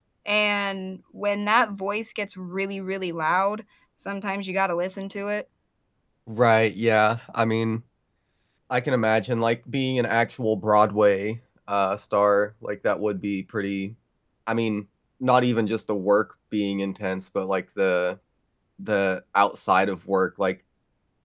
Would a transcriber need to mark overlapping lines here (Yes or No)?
No